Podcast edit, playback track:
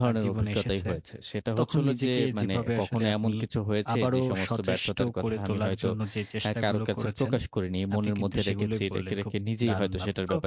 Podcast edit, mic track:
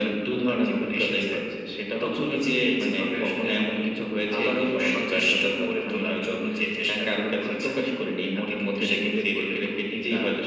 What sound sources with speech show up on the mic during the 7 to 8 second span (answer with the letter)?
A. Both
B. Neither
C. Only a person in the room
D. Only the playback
D